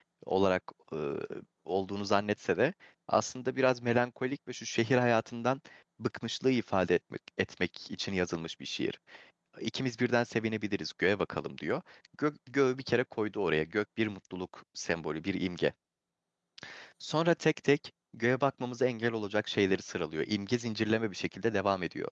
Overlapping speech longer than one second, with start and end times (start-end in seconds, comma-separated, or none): none